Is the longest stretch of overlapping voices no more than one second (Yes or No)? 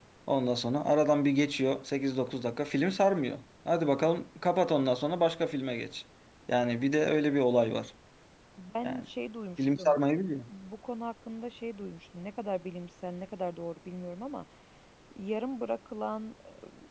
Yes